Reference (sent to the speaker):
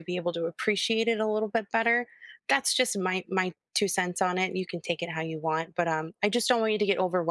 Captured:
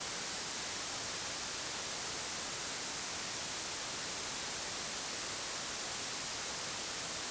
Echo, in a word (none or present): none